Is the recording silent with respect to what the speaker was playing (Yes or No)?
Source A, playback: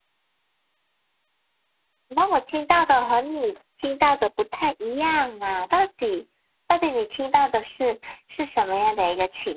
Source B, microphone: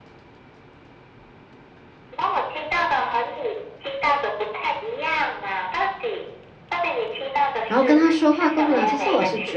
No